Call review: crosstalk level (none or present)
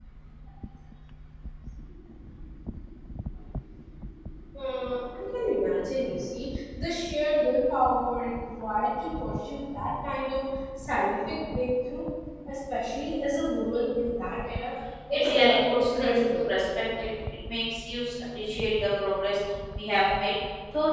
present